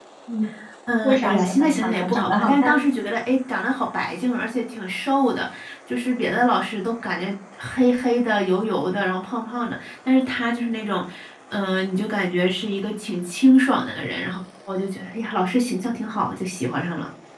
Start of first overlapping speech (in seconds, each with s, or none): 1.0 s